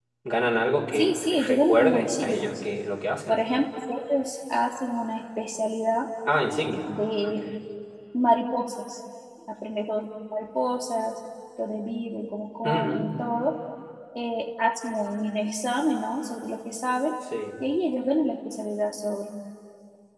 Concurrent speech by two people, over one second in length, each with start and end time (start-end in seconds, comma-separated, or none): 0.9-2.5